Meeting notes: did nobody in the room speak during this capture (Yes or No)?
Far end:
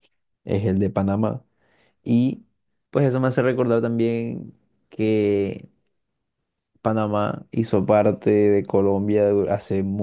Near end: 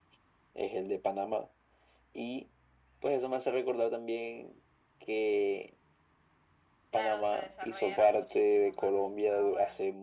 No